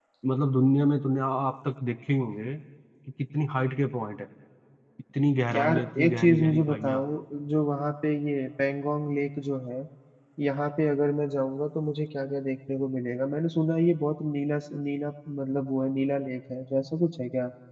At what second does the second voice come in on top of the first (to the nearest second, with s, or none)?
6 s